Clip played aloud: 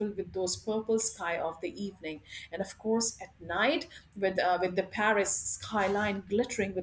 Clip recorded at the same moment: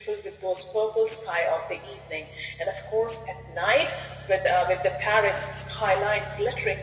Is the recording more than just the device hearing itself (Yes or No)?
No